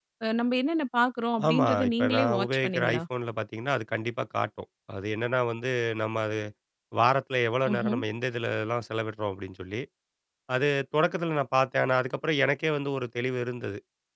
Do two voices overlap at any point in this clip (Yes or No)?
Yes